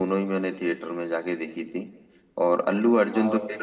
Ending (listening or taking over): listening